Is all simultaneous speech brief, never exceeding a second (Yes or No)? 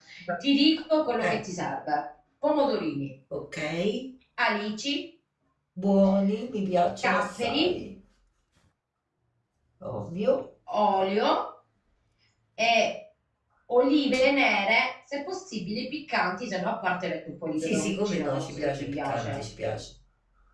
No